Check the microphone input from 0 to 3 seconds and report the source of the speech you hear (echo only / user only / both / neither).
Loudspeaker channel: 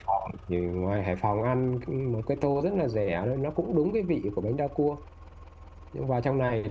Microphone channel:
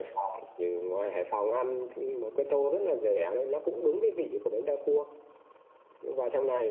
echo only